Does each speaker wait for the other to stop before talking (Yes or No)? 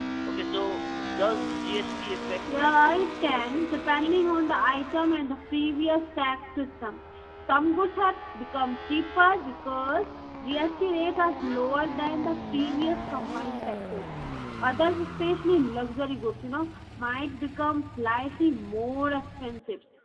No